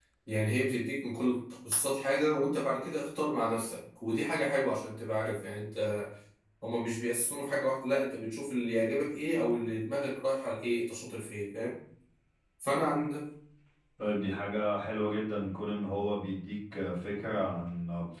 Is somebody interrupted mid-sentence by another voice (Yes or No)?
No